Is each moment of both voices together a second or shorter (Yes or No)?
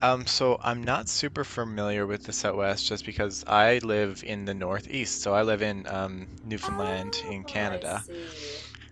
No